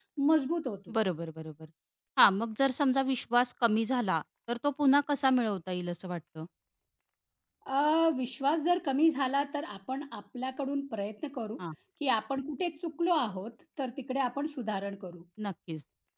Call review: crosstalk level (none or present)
none